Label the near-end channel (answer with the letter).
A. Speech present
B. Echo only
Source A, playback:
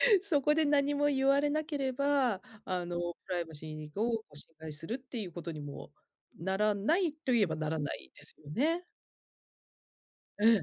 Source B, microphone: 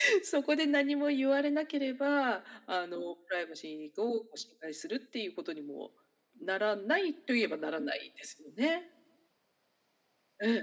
B